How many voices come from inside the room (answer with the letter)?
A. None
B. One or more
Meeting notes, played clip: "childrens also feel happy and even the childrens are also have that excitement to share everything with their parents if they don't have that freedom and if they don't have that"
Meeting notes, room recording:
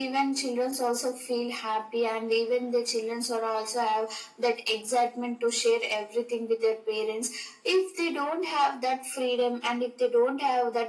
A